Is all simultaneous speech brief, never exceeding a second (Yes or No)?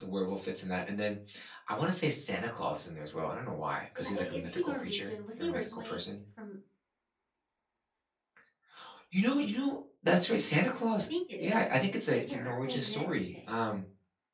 No